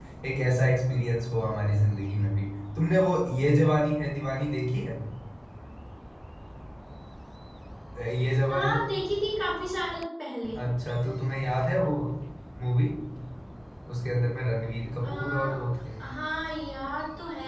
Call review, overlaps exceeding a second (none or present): none